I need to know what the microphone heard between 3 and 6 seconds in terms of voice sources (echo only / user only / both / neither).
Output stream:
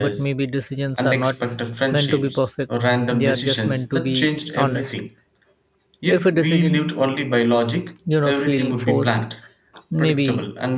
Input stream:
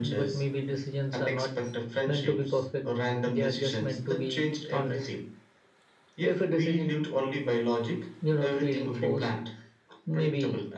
echo only